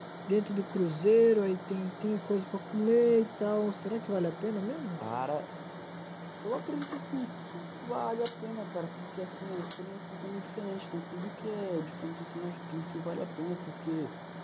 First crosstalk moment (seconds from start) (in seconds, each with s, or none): none